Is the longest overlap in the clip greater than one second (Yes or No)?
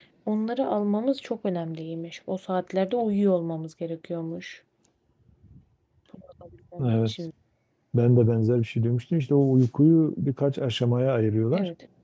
No